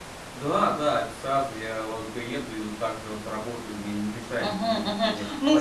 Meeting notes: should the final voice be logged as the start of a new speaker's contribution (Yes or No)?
Yes